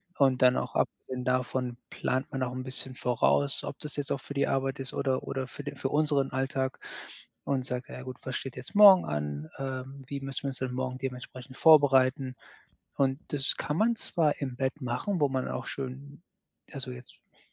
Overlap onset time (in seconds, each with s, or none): none